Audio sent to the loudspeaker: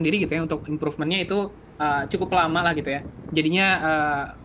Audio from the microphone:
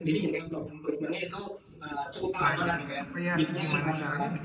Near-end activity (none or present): present